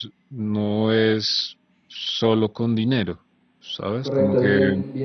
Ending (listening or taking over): taking over